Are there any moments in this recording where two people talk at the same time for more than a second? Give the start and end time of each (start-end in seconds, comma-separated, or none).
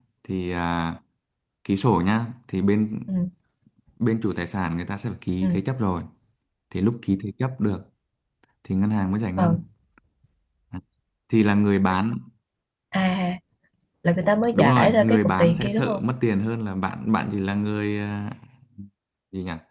14.5-16.0